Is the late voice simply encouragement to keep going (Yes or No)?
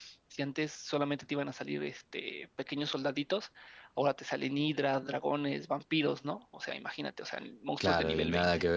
No